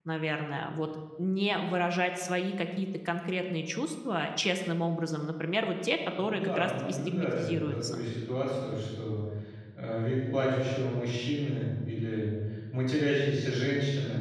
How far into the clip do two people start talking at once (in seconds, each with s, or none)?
6.2 s